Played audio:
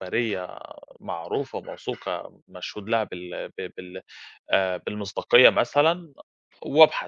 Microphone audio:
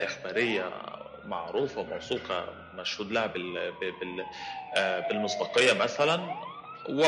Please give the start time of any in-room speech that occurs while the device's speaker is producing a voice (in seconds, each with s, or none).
none